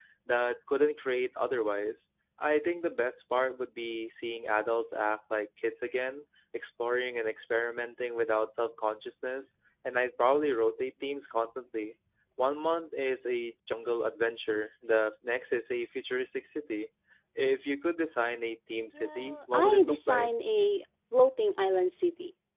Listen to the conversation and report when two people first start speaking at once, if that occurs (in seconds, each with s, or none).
18.9 s